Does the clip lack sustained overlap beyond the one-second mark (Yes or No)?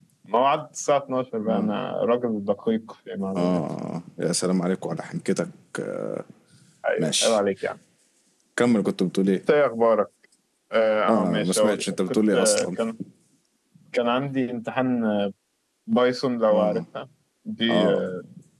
No